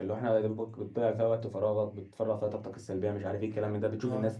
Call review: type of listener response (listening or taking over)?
listening